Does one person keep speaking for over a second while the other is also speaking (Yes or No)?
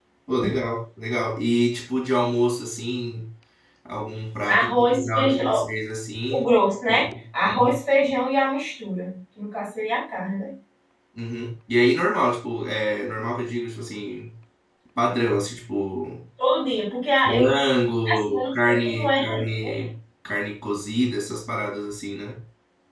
Yes